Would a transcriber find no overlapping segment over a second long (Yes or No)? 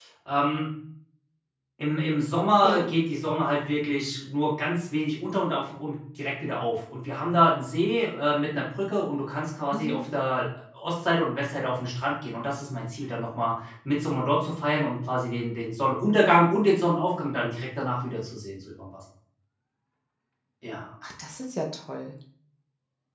Yes